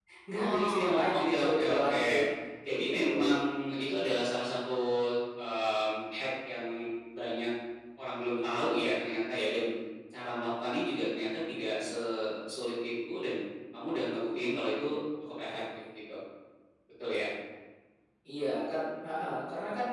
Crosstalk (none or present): present